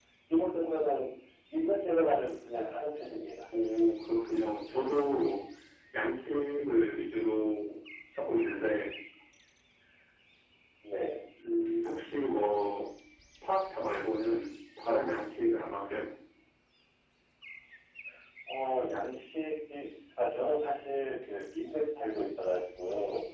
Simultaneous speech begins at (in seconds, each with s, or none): none